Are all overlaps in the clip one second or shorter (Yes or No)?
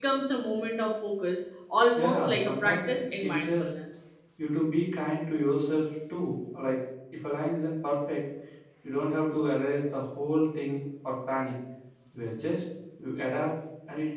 No